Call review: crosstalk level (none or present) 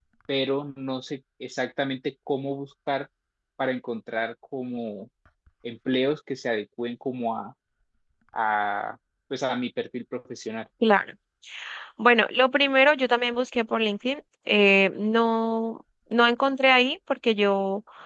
none